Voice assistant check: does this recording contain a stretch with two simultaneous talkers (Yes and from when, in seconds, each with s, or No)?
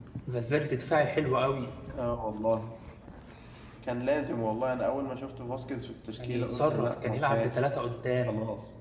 Yes, from 6.2 s